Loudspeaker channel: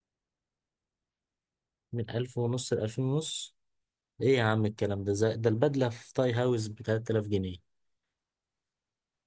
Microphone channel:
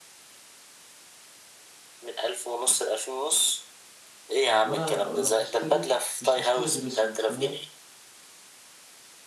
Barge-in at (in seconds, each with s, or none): 4.6 s